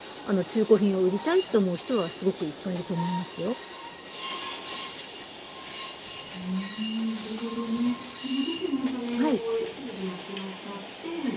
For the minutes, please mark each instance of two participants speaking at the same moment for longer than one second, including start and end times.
none

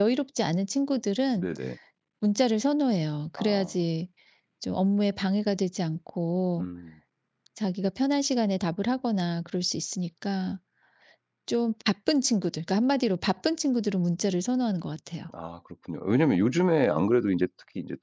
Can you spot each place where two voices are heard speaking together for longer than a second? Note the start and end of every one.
none

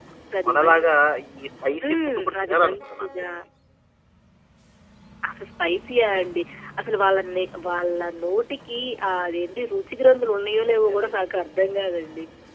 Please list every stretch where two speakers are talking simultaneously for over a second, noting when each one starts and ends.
1.8-3.3

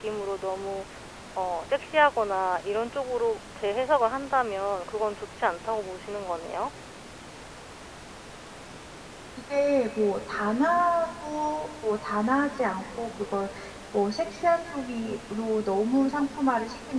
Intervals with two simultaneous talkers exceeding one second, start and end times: none

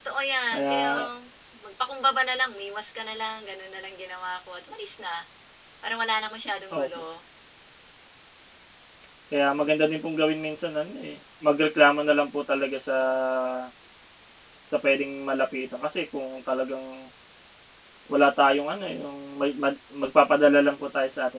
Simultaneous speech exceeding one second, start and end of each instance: none

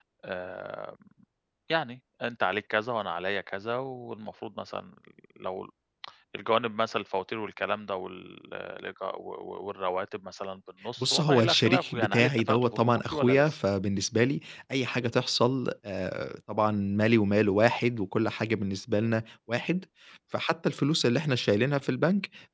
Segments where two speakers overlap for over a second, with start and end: 11.0-13.6

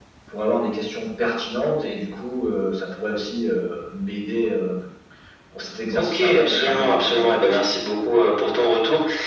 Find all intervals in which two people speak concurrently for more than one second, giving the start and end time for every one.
5.9-7.6

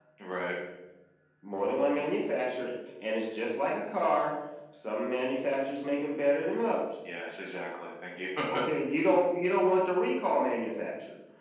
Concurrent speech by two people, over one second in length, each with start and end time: none

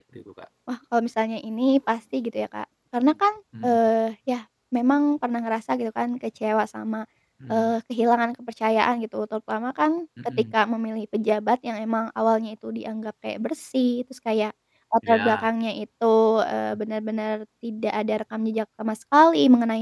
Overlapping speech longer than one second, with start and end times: none

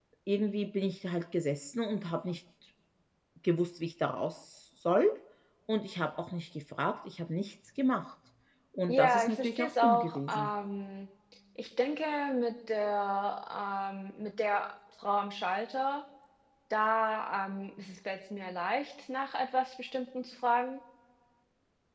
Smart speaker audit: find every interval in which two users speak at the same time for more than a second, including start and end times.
8.9-10.5

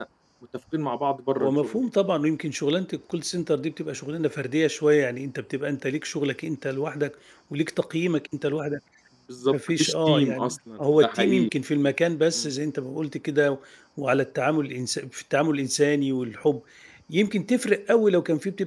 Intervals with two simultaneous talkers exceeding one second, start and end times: 9.5-11.5

